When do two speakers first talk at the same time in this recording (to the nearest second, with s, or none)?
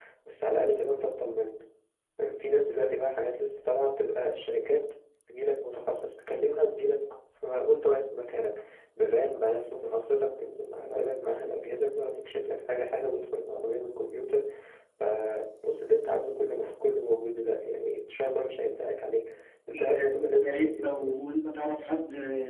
20 s